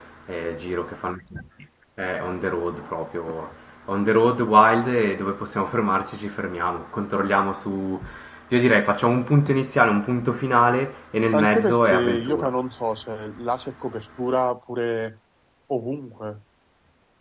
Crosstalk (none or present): present